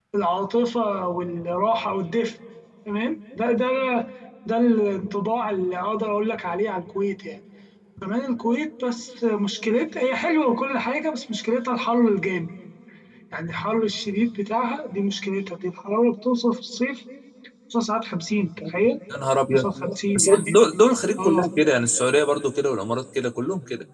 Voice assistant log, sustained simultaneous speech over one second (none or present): none